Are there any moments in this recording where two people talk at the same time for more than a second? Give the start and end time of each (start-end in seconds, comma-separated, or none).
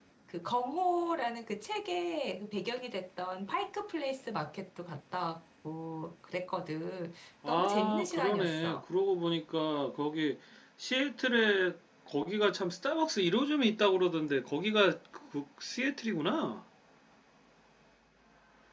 7.5-8.8